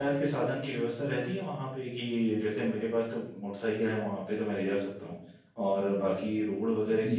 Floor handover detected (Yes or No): No